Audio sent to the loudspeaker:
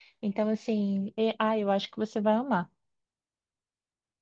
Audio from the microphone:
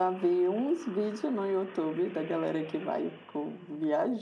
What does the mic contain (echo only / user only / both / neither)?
user only